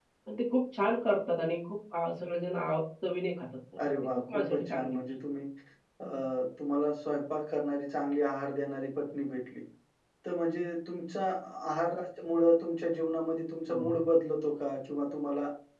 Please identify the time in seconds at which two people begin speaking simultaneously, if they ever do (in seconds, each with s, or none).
3.8 s